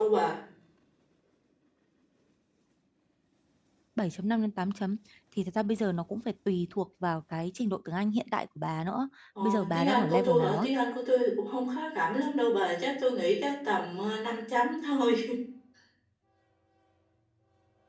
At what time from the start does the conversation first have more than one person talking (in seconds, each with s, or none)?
9.3 s